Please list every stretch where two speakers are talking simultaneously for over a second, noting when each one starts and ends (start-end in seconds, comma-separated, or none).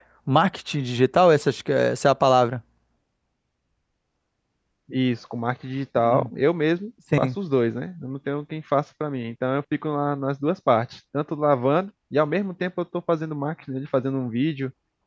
none